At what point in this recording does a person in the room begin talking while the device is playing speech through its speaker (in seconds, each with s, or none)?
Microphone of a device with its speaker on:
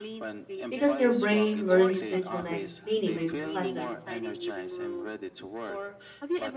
0.7 s